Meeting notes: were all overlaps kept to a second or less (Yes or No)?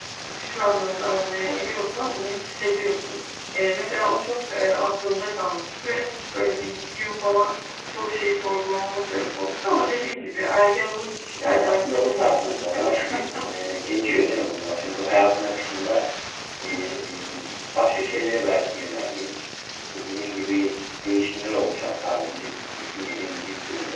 No